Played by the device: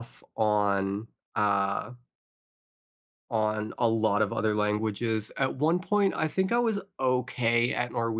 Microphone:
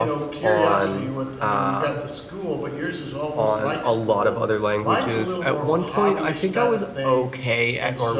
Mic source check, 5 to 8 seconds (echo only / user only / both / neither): both